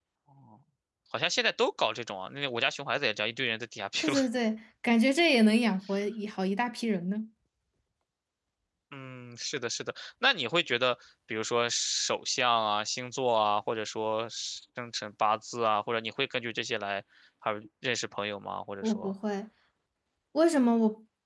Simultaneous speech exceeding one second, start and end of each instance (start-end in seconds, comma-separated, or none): none